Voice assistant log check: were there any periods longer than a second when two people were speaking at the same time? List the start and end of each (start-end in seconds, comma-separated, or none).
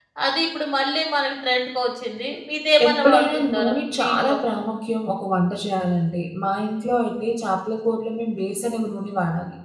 2.9-4.4